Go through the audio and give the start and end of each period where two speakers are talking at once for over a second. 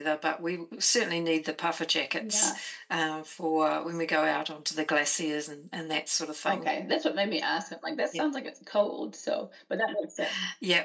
none

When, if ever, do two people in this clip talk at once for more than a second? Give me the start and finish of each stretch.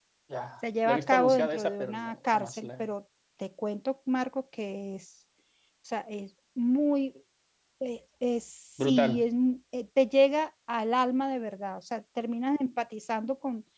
0.8-2.9

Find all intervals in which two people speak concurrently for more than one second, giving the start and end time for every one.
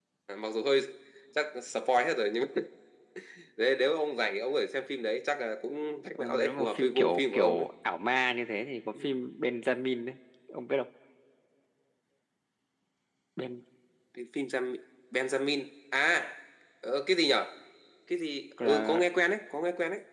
6.2-7.7

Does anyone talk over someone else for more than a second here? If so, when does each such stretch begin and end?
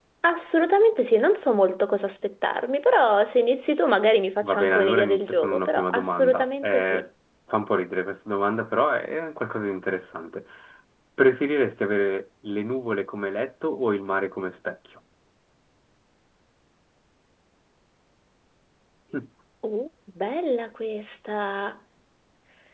4.4-7.0

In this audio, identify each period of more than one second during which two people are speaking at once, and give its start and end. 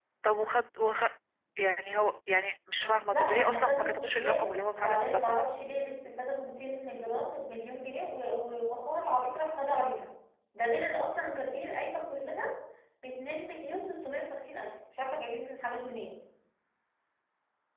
3.1-5.4

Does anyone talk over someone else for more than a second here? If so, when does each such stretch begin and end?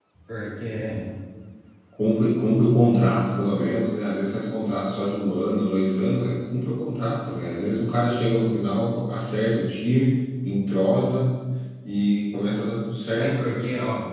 none

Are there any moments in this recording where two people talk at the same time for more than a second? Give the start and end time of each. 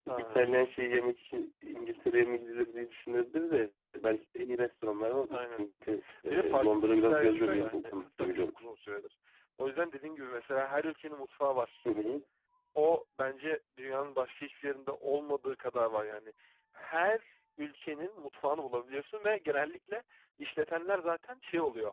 6.3-8.5

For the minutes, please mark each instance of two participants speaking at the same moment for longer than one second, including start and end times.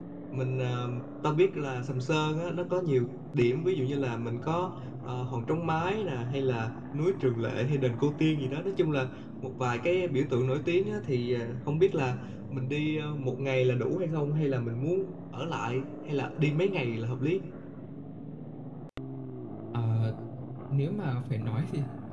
none

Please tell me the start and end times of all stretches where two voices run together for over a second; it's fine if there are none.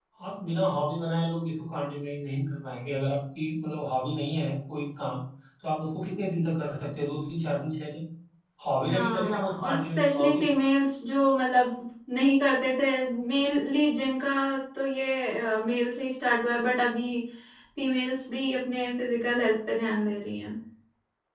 8.9-10.4

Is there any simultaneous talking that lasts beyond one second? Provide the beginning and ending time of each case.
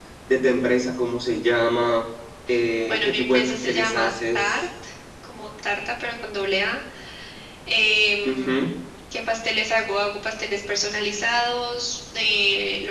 2.9-4.5

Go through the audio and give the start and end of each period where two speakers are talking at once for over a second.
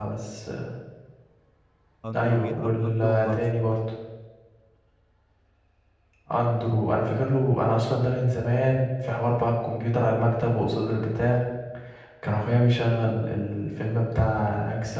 2.1-3.7

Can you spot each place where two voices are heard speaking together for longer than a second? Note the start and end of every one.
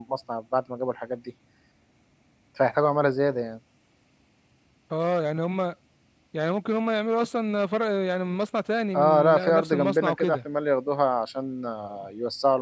8.9-10.4

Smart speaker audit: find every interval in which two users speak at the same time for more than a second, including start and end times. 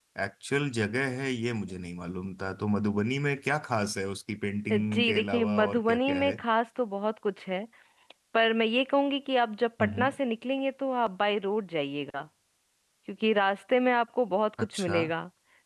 4.7-6.4

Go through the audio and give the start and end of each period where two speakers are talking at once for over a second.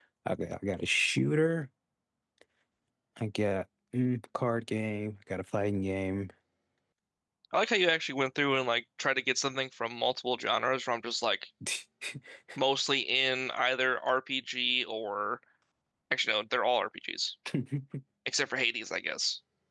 none

